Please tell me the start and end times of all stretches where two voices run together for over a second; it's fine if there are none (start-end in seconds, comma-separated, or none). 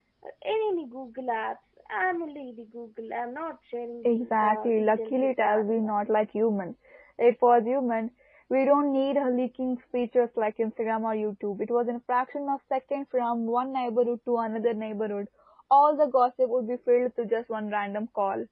4.0-6.0